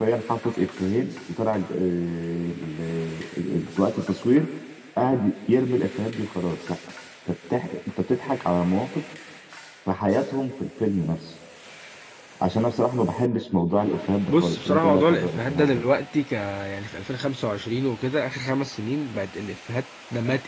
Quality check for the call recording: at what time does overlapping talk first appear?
14.3 s

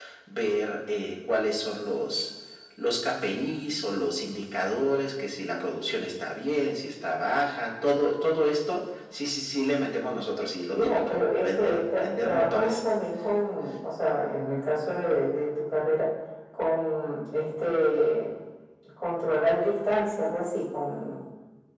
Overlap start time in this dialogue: 10.7 s

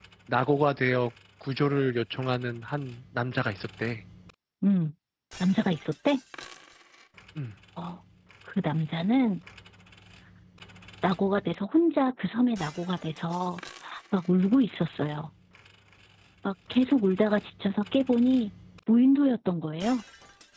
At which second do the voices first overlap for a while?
none

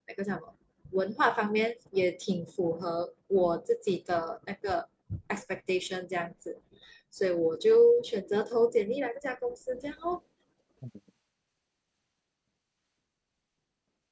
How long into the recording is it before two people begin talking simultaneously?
none

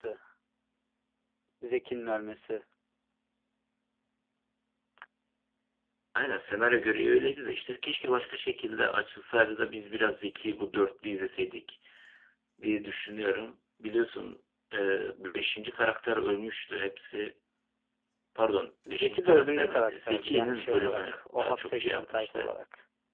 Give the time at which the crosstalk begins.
18.9 s

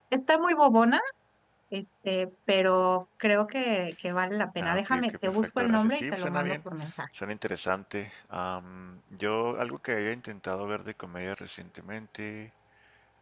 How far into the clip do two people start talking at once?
4.6 s

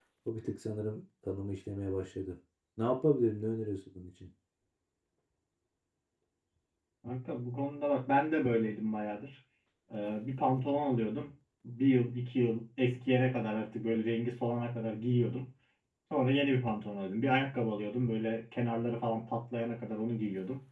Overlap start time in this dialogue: none

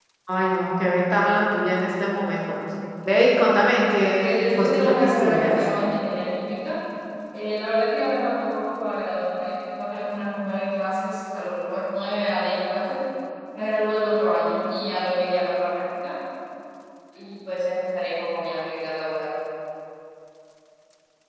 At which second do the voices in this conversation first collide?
4.2 s

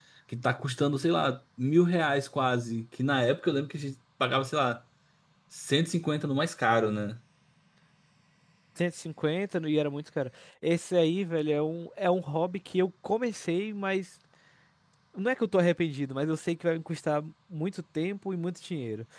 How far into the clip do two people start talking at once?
none

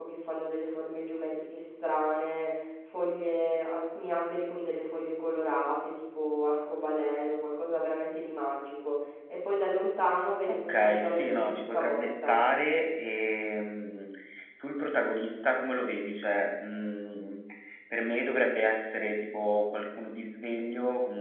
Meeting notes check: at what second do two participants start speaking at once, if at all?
10.5 s

